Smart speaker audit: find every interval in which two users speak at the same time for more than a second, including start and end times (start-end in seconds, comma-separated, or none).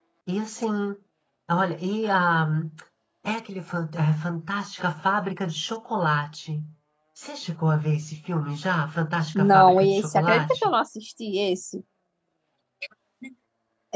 9.3-10.7